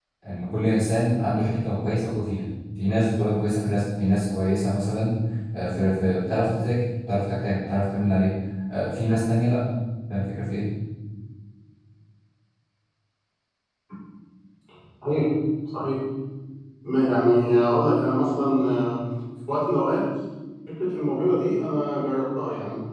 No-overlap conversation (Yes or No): Yes